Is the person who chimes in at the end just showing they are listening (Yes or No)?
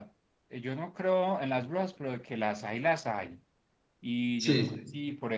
Yes